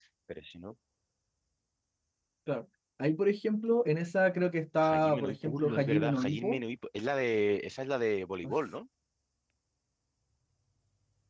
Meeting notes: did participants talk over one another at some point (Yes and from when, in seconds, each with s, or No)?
Yes, from 4.8 s